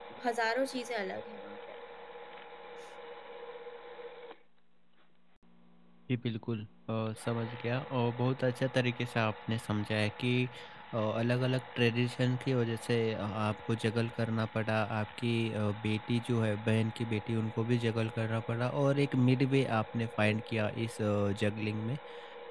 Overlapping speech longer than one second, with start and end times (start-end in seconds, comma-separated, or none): none